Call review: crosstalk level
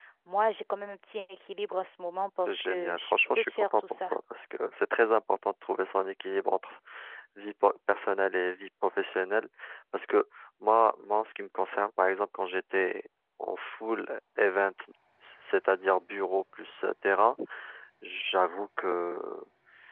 present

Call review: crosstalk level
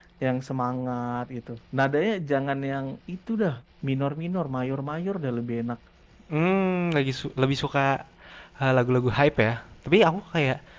none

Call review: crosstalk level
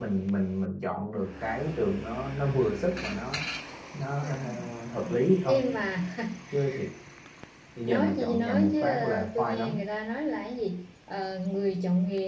present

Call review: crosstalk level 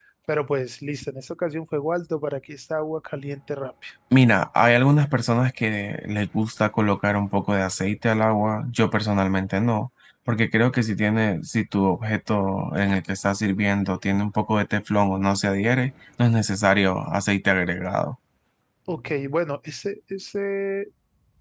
none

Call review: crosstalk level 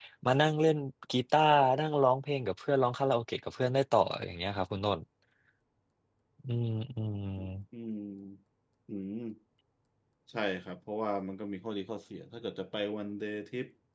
none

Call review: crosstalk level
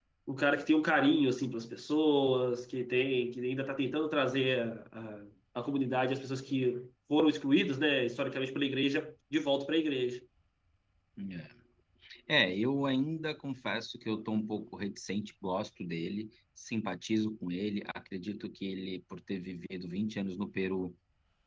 none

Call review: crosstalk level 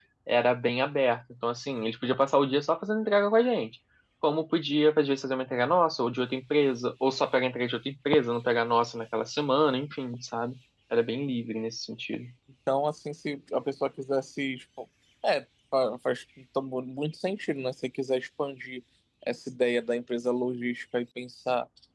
none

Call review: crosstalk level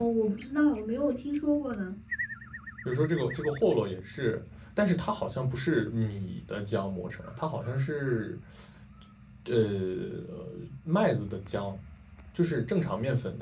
none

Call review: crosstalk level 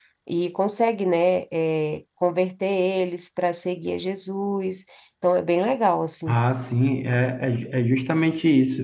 none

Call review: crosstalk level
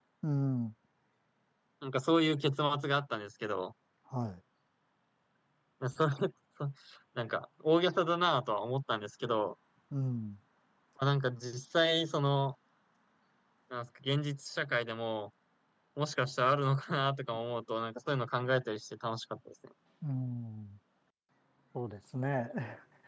none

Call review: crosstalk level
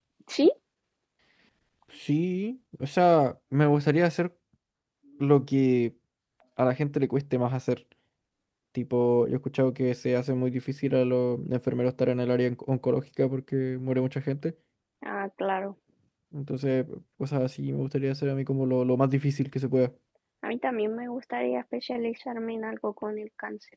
none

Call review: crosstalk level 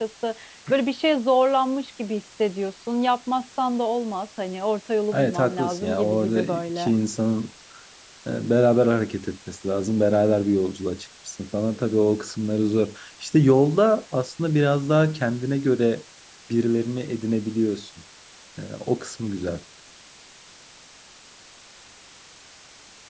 present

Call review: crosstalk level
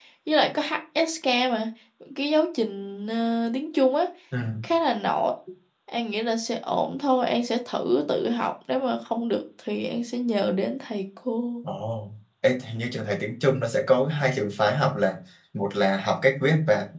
none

